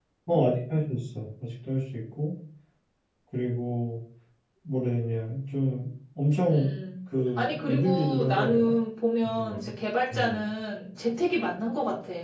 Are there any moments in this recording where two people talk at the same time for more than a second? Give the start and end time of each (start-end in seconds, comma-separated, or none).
7.4-8.8